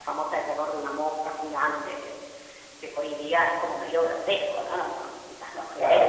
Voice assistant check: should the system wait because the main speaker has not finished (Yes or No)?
No